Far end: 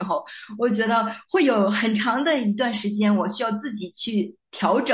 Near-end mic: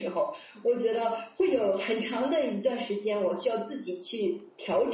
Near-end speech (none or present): none